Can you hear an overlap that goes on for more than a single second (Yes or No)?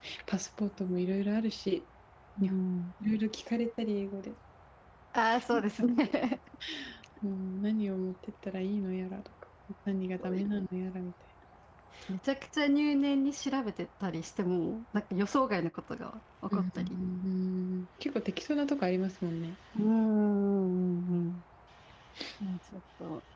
No